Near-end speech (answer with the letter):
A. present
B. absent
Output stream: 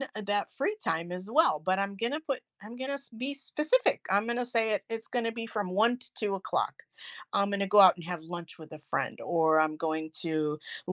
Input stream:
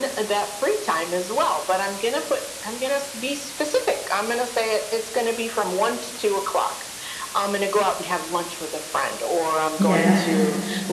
A